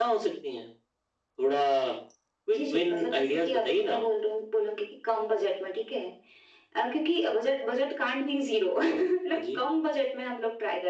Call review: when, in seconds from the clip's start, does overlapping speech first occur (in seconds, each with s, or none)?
2.5 s